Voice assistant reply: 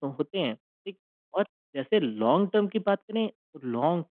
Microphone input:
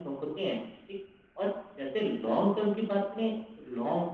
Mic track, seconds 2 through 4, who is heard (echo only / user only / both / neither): echo only